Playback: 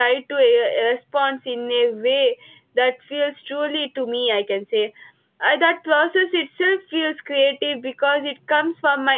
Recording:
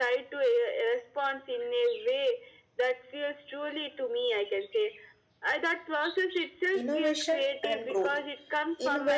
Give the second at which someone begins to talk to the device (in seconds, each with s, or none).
6.8 s